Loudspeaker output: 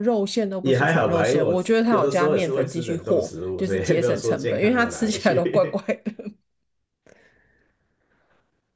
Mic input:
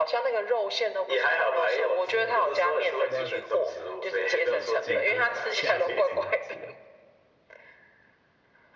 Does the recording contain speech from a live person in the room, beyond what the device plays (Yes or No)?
Yes